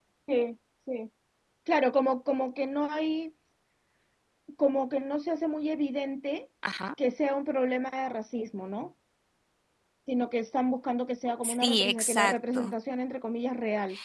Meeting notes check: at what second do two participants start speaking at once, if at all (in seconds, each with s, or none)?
11.4 s